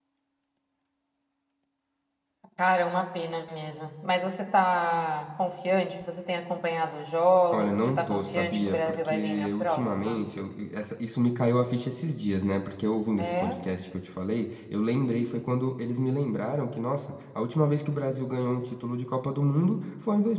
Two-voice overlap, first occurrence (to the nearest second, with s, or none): 8 s